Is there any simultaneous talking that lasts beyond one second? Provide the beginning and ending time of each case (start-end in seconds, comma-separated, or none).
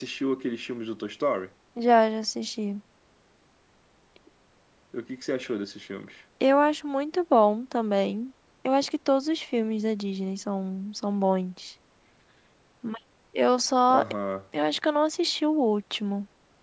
none